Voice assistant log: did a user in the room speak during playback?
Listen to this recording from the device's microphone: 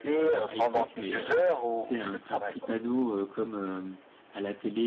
Yes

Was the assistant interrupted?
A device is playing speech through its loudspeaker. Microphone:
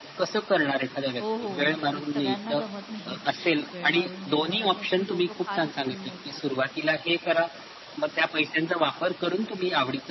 Yes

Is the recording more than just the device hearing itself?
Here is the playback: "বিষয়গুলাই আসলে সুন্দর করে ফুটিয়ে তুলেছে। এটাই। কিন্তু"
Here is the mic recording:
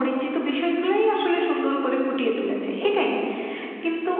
No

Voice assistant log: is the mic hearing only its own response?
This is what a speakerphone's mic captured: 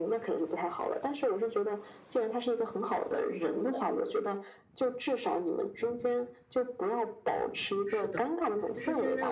No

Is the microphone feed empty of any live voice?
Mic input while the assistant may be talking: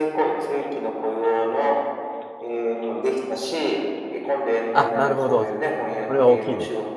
No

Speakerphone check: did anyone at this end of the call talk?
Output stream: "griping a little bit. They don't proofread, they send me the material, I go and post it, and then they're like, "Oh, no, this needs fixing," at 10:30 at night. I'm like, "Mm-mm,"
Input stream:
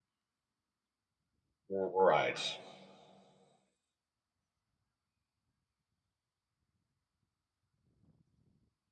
Yes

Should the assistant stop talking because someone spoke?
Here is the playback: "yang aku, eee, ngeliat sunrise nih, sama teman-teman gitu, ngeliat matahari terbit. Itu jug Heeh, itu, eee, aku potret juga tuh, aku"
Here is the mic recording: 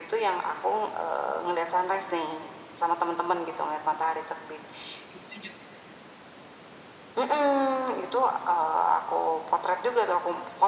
No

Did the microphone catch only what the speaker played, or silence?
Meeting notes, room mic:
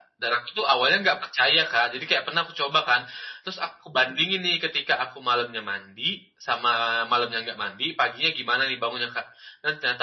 Yes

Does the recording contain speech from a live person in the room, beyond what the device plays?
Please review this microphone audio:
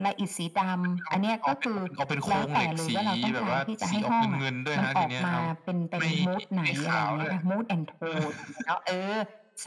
No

